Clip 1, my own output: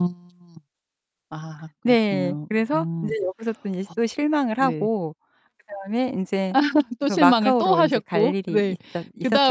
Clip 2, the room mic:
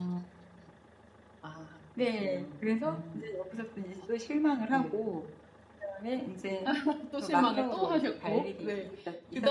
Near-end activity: none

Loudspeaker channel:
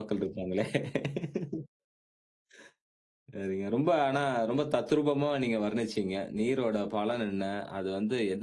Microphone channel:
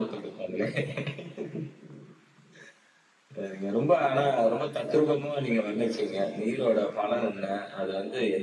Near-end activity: none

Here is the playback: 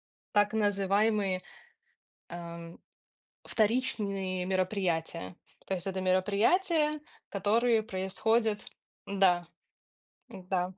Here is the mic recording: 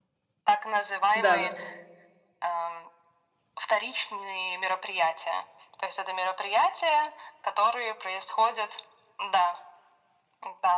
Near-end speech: present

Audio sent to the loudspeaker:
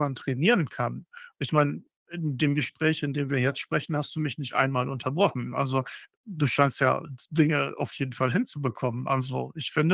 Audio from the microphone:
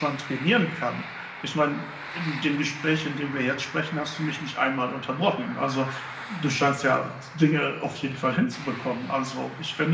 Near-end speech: none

